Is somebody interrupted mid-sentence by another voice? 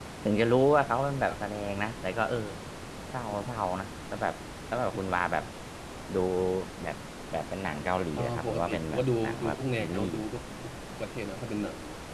Yes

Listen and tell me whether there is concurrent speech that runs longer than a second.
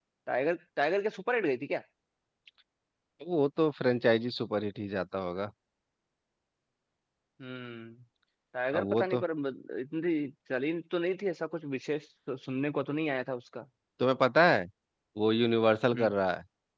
No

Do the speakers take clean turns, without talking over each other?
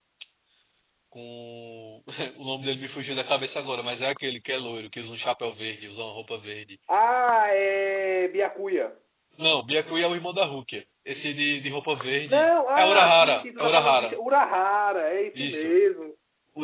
No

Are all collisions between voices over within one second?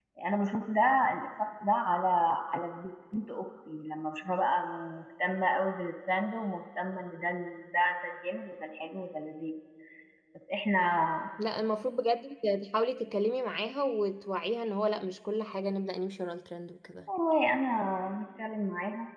Yes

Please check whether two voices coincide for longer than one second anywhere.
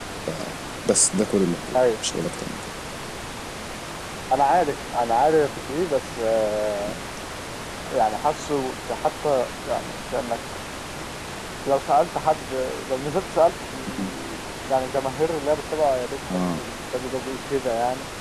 No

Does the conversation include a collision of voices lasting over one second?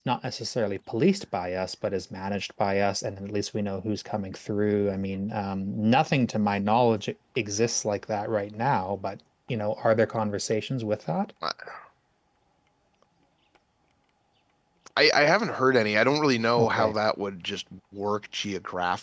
No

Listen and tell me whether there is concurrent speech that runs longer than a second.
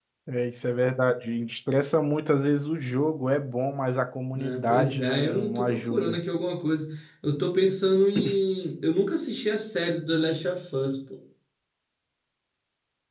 Yes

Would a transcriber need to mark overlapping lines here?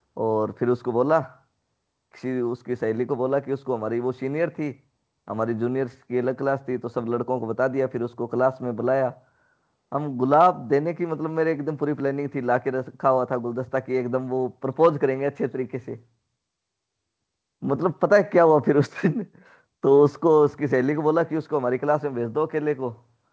No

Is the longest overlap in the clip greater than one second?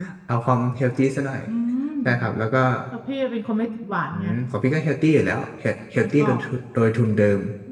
No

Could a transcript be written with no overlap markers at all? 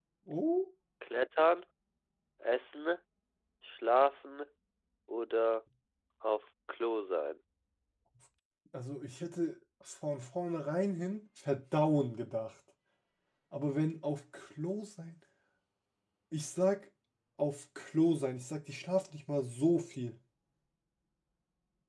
Yes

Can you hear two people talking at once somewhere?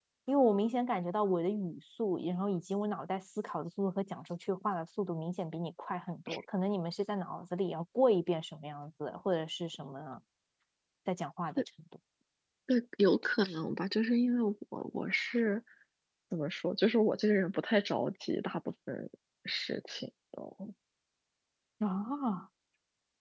No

